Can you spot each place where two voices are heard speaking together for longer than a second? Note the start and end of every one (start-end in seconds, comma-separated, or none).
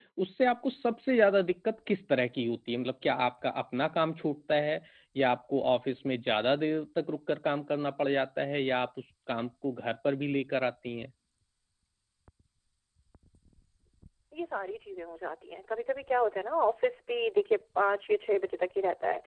none